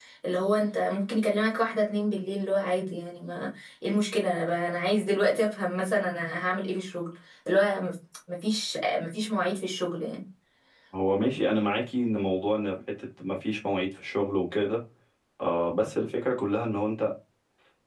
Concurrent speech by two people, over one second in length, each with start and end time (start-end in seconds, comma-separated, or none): none